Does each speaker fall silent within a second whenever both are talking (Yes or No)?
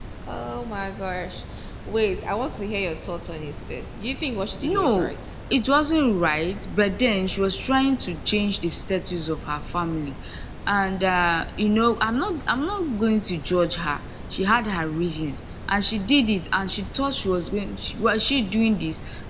Yes